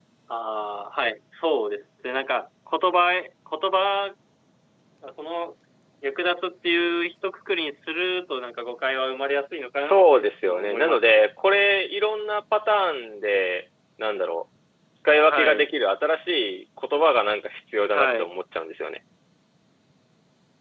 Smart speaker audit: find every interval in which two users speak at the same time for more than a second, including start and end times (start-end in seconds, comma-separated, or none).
9.8-11.2